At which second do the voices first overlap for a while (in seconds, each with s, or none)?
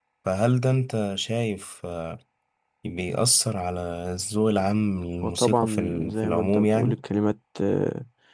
5.2 s